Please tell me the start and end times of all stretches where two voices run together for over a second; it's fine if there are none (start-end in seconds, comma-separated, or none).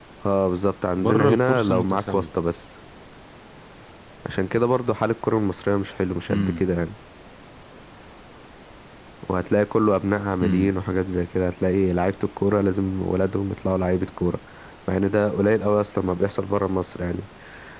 1.0-2.2